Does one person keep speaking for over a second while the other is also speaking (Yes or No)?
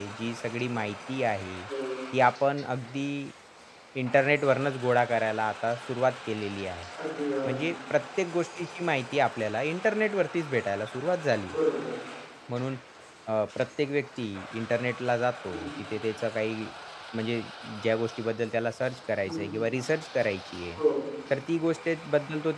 No